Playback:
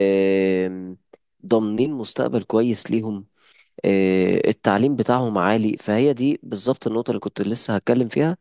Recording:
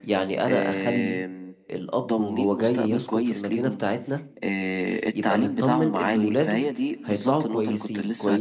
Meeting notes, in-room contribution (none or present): present